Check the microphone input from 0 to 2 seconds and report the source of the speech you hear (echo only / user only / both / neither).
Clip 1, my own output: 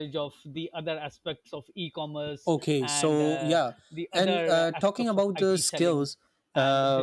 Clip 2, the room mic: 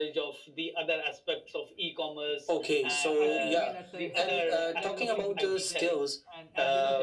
echo only